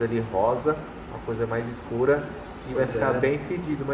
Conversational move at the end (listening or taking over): listening